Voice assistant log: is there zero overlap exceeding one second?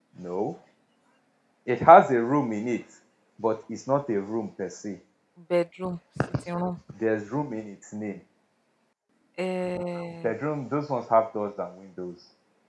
Yes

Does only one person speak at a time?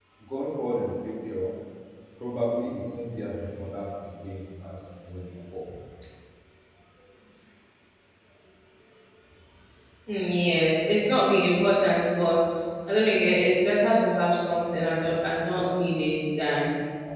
Yes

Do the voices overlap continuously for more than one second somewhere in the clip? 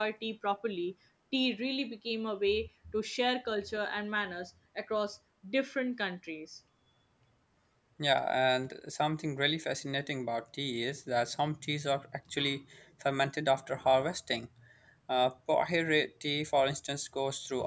No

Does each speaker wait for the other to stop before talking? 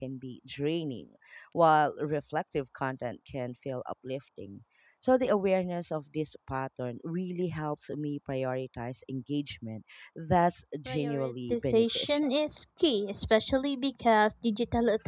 No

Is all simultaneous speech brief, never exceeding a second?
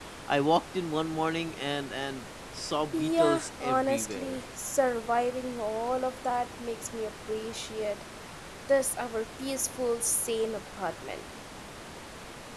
No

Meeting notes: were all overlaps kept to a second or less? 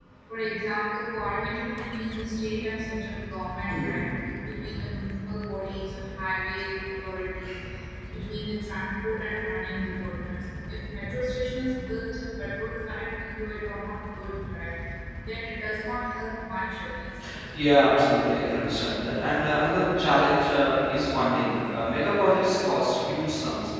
Yes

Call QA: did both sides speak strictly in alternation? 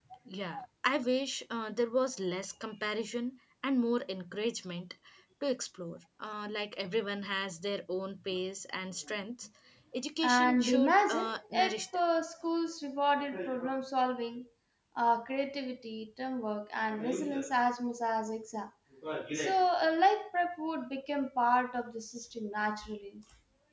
No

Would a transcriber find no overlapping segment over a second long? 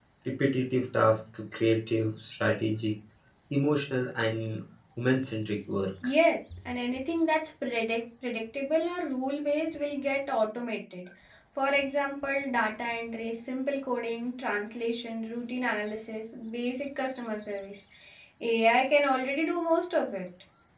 Yes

